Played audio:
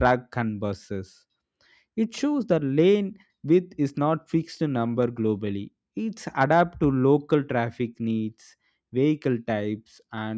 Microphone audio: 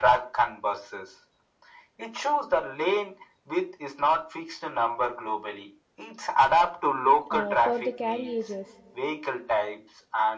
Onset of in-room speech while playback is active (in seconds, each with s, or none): 7.3 s